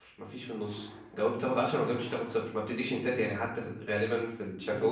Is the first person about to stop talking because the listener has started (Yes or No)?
Yes